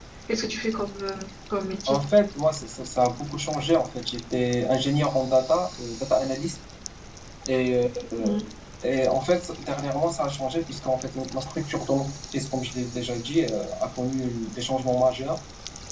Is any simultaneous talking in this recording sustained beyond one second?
No

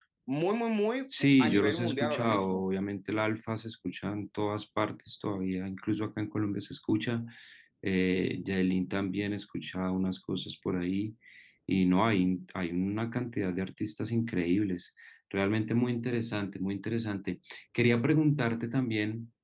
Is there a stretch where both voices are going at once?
Yes, from 1.2 s

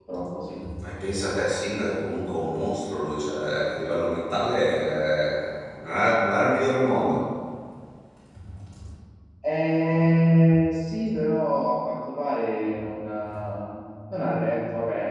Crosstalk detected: No

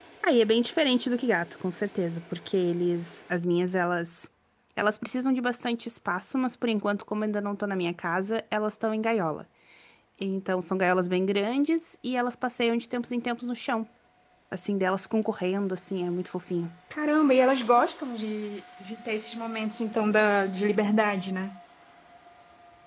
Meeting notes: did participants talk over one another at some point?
No

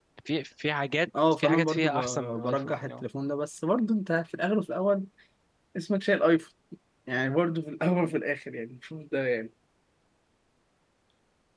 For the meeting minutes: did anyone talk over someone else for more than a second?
Yes, from 1.1 s

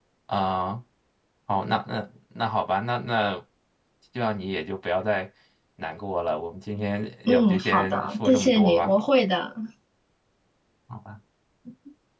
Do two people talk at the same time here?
Yes, from 7.3 s

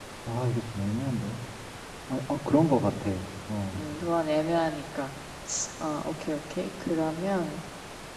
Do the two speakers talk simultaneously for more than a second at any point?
No

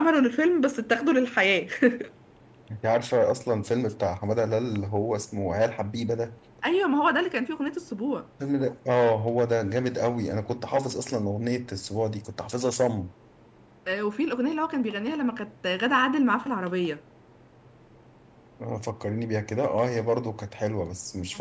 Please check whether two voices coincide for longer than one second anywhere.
No

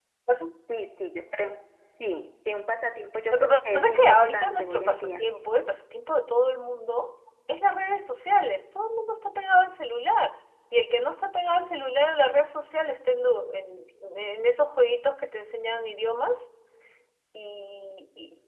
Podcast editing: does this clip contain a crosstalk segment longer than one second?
Yes, from 3.3 s

